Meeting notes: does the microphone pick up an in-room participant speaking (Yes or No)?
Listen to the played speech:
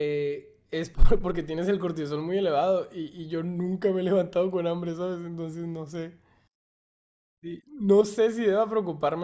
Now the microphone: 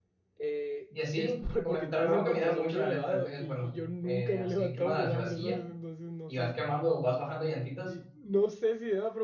Yes